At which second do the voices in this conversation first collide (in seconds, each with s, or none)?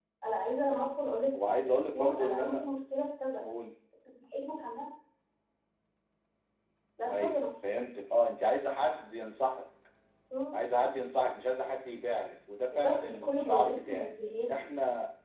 1.3 s